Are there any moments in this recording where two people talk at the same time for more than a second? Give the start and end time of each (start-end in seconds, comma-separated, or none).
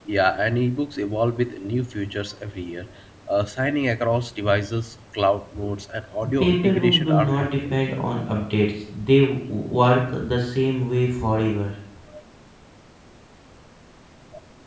6.4-7.7